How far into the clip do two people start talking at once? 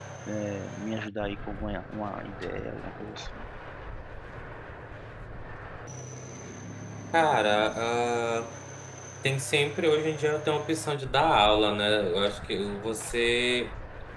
none

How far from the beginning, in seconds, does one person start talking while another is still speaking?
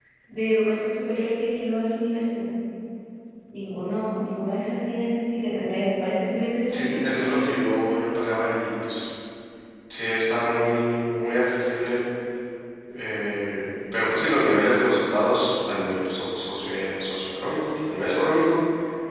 7 s

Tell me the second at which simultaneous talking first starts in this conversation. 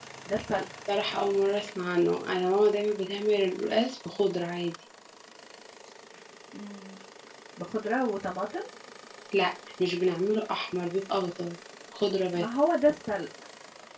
none

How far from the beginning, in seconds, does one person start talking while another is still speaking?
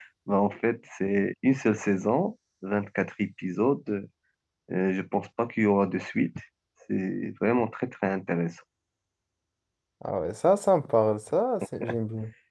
none

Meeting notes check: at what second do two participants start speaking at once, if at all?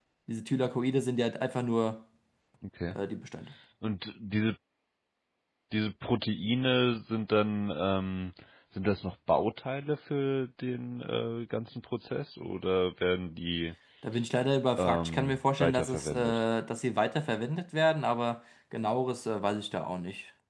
15 s

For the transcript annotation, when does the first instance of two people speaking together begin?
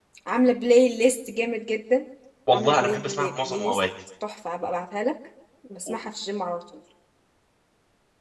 3 s

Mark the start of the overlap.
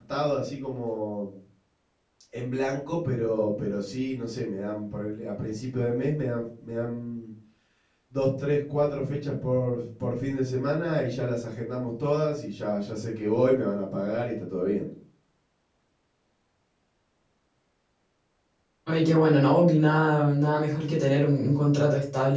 none

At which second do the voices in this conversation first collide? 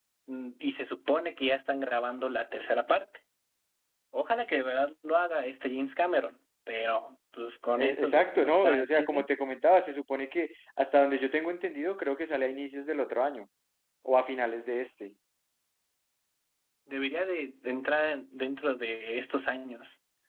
8 s

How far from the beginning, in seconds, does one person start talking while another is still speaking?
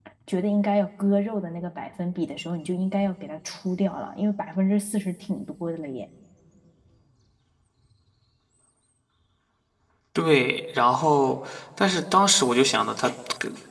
none

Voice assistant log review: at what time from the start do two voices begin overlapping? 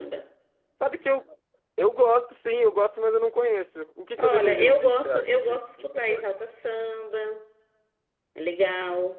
4 s

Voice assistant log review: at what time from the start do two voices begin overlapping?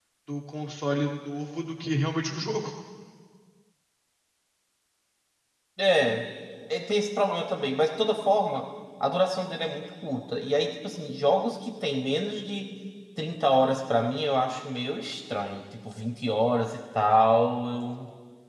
none

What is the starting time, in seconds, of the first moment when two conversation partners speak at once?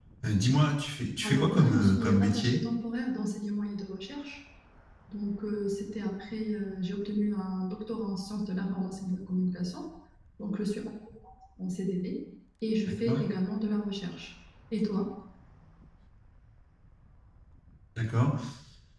1 s

